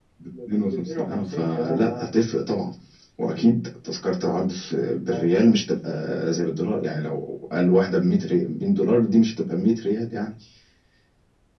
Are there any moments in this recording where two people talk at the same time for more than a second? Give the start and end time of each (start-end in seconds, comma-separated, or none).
0.7-2.1